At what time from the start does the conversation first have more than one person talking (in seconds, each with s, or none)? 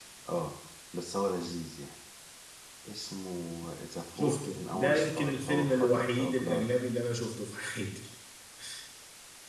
4.2 s